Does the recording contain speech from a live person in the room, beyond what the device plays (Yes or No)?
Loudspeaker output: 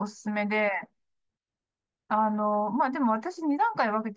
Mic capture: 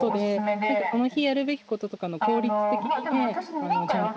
Yes